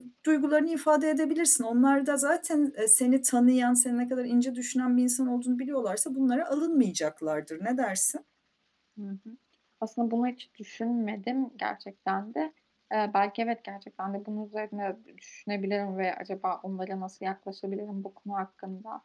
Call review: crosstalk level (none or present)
none